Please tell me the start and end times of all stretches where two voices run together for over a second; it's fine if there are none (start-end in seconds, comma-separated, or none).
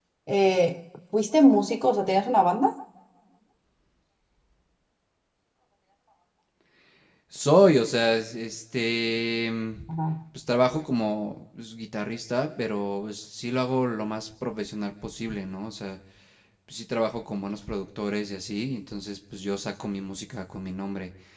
none